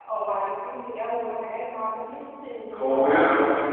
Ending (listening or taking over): taking over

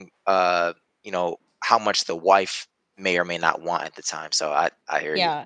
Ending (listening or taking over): taking over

